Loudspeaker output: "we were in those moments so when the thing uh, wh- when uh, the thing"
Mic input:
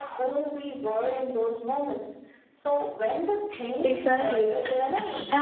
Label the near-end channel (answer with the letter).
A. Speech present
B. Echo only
A